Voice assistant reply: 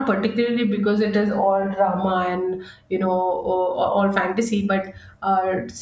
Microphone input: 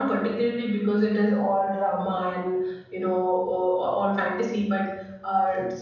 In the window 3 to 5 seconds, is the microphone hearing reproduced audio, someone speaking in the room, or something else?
echo only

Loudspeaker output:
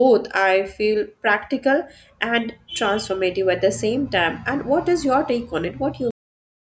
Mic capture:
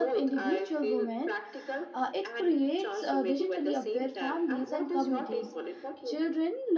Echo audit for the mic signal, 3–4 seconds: both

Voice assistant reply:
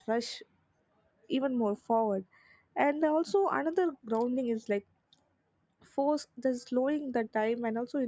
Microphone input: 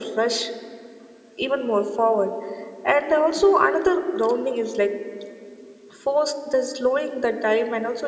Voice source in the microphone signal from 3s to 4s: echo only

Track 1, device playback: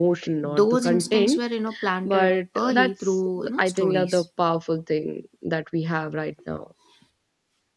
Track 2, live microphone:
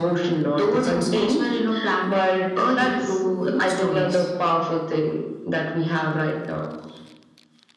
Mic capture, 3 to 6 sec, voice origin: echo only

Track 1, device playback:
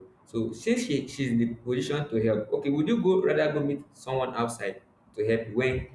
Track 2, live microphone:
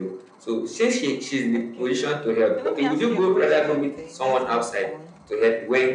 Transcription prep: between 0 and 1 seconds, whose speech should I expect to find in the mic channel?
echo only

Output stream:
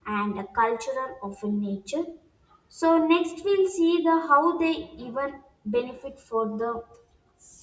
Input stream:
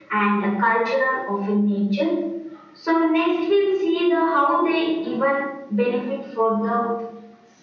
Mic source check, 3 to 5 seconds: echo only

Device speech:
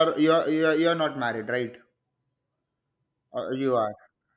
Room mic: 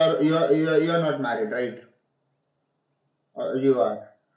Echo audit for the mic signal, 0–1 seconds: echo only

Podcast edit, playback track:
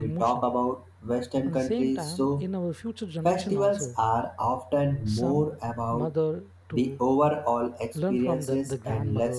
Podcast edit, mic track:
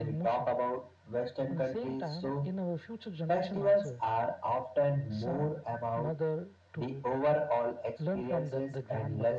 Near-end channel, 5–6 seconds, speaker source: echo only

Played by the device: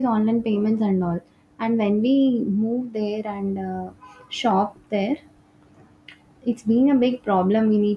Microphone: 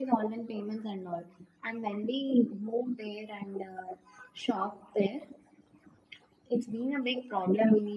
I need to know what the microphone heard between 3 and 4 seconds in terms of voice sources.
echo only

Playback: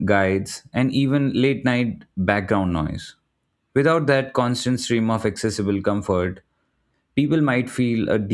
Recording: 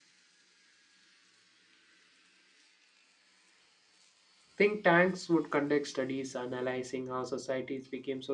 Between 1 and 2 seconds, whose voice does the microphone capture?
neither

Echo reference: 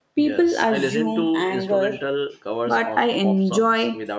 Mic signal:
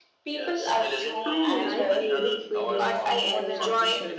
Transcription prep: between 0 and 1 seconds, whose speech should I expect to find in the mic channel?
echo only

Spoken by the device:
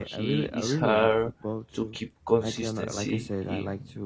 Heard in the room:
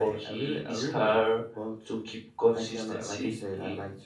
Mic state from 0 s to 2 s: echo only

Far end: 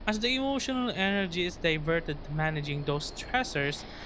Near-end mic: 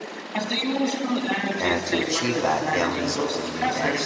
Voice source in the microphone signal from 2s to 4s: both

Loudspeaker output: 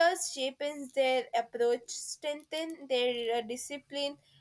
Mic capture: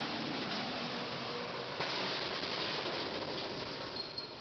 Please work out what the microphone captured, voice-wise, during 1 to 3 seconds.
neither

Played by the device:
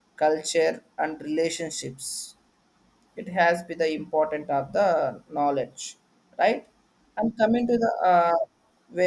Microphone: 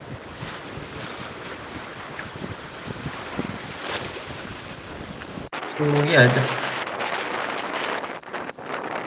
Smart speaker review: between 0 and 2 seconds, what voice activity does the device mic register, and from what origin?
neither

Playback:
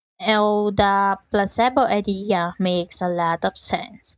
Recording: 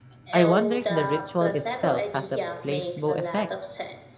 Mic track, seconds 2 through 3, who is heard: both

